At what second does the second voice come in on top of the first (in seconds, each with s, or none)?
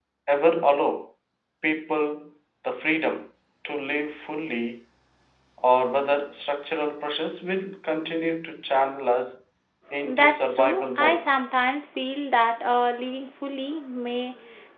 10.0 s